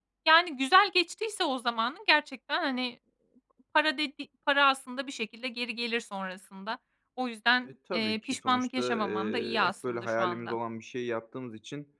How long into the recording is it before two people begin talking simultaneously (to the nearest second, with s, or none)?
8 s